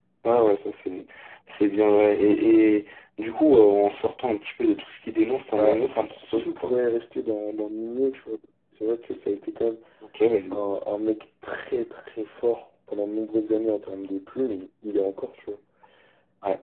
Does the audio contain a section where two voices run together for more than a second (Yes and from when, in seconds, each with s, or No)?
Yes, from 5.5 s